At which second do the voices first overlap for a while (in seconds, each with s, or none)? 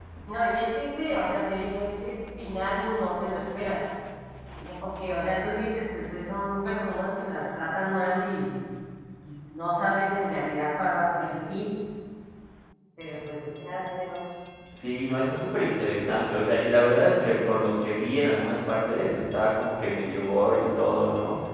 none